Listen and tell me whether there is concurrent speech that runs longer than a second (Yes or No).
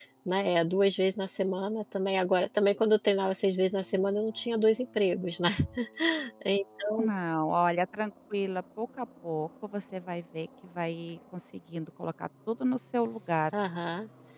No